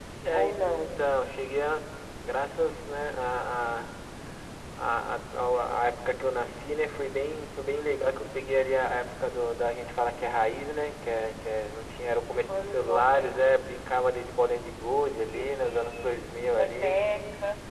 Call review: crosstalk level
present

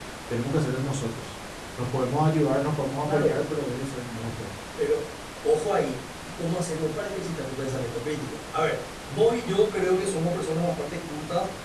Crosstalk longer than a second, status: none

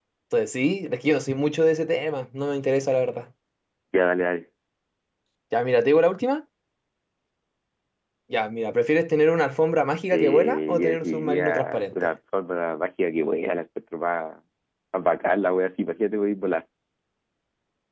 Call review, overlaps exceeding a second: present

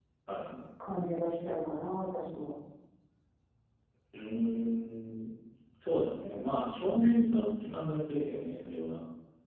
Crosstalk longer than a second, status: none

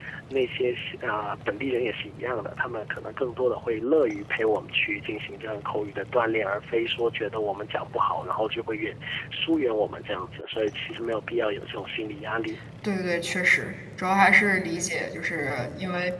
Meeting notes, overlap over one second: none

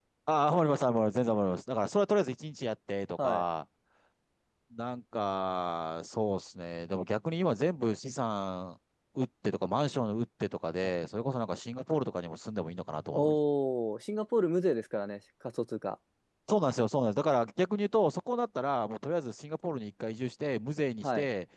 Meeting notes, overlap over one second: none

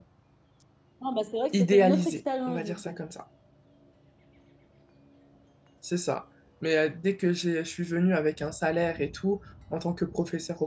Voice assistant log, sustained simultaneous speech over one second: present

